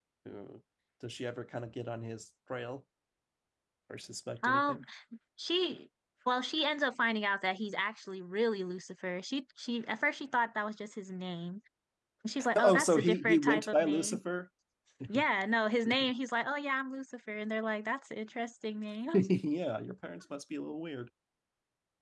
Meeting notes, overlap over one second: present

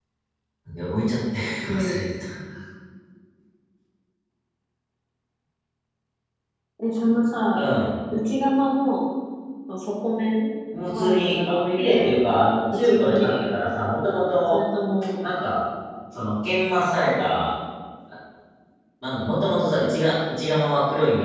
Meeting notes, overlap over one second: present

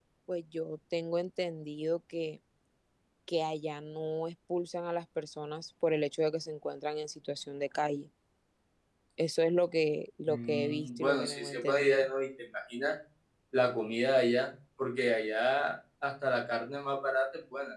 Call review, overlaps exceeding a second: present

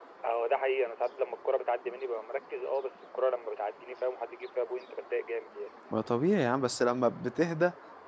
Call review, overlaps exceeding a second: none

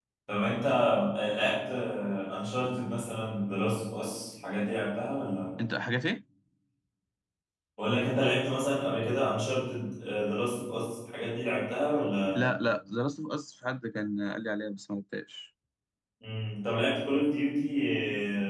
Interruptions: none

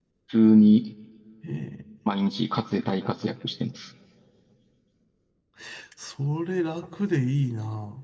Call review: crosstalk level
none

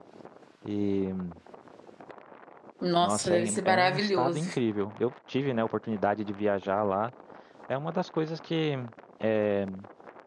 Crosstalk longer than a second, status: present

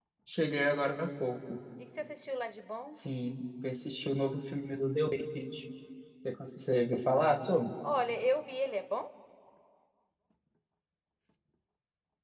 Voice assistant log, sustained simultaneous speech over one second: none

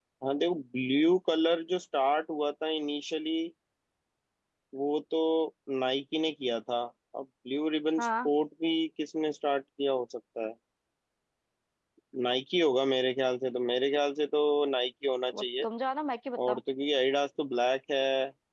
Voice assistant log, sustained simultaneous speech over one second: none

